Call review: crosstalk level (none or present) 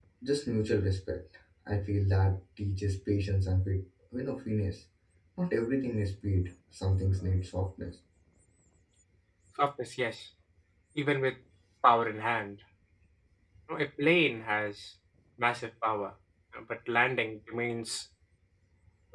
none